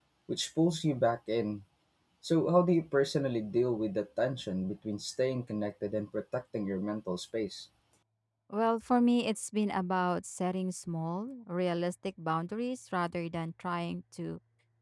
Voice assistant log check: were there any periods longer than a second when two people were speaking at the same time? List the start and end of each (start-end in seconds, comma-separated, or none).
none